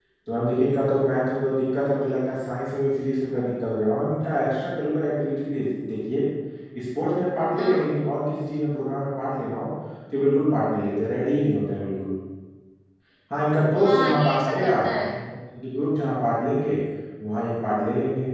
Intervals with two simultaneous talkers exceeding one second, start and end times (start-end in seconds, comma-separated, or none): 13.8-15.2